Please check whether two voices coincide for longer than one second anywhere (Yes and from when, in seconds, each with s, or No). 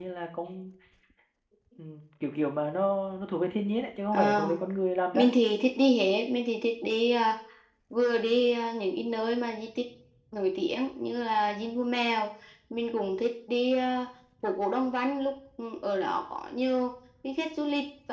No